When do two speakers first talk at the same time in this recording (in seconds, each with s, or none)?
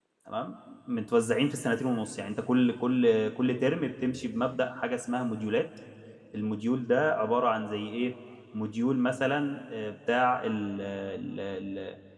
none